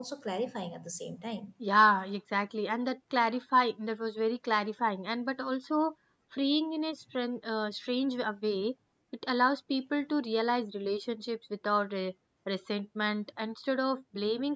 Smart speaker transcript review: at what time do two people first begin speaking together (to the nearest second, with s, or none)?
none